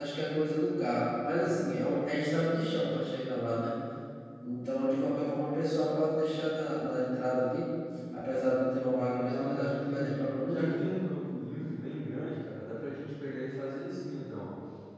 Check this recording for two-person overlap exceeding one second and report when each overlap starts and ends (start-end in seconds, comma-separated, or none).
9.2-10.7